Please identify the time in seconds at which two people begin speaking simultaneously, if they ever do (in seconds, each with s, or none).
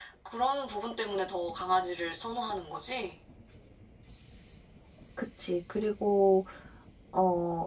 none